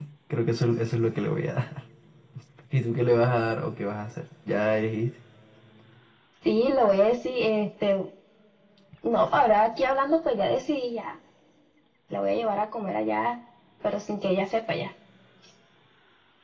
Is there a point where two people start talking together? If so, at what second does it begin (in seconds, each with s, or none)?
none